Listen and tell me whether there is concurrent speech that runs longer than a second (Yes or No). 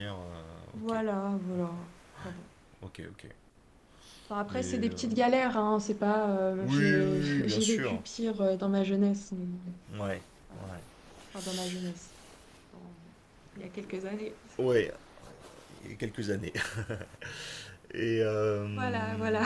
Yes